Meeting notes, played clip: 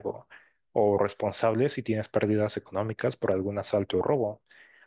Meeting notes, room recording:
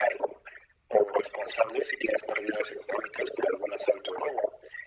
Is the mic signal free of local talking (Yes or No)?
Yes